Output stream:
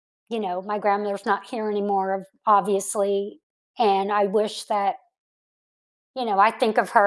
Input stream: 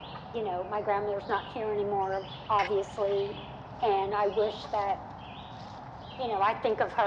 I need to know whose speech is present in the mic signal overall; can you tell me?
echo only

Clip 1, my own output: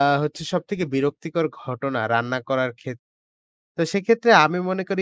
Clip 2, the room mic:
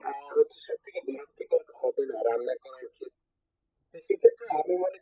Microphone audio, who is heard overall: echo only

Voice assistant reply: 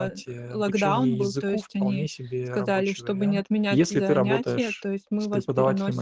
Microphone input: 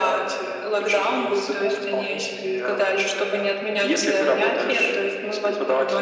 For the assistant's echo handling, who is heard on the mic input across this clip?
echo only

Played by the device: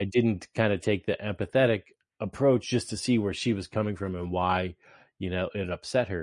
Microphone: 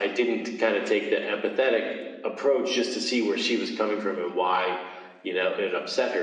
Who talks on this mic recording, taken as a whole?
echo only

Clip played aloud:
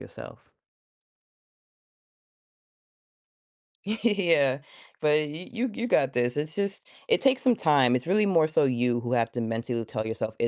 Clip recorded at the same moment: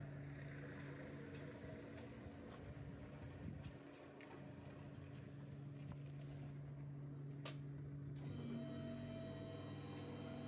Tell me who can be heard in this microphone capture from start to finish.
neither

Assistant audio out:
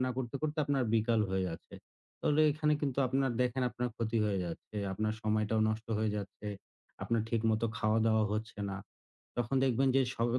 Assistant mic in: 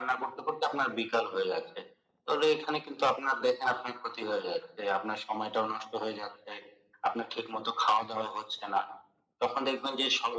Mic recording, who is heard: echo only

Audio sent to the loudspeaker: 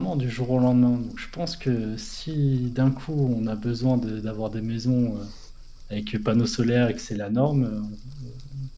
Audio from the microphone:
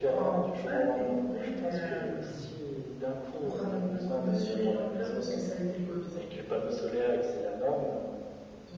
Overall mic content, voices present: both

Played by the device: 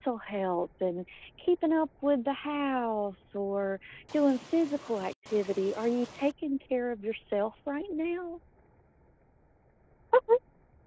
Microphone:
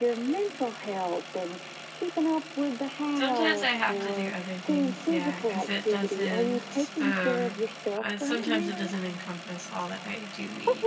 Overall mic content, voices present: both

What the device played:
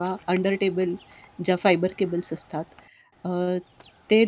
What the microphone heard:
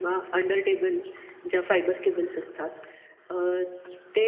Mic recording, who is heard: echo only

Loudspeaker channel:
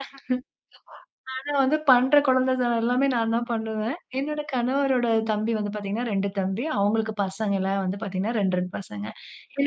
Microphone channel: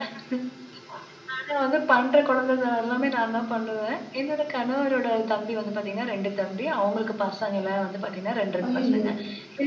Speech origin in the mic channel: both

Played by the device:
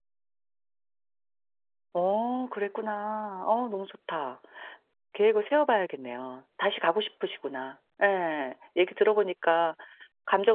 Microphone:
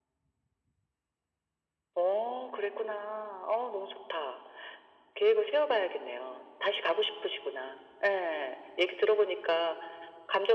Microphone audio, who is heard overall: echo only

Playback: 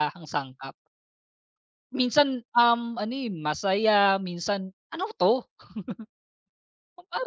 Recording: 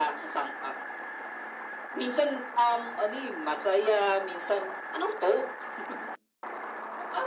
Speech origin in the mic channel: echo only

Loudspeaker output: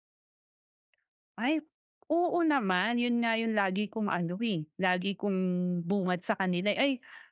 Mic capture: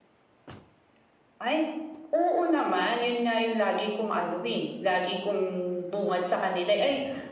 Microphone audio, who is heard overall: echo only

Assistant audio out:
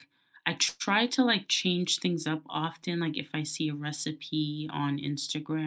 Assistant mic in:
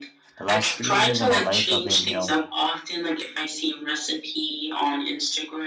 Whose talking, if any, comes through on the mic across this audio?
both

